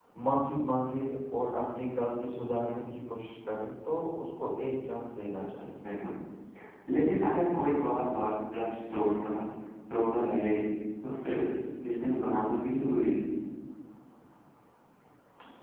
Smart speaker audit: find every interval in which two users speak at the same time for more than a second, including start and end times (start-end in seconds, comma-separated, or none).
none